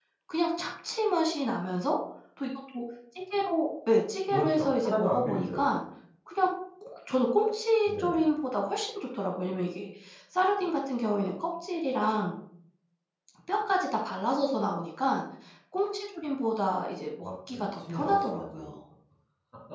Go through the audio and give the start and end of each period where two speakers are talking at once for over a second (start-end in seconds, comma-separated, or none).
4.3-5.7, 17.2-18.8